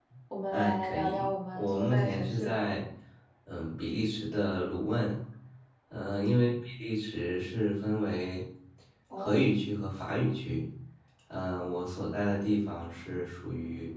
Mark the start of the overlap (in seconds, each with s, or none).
0.5 s